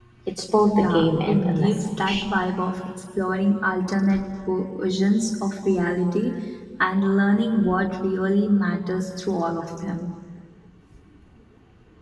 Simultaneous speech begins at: 1 s

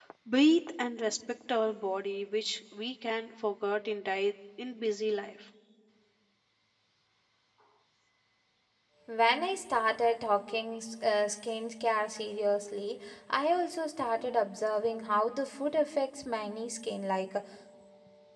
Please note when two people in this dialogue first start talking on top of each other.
none

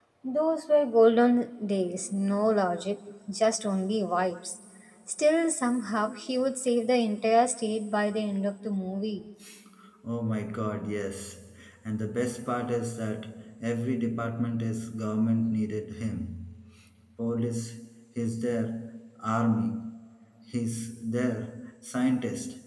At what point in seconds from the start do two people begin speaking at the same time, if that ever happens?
none

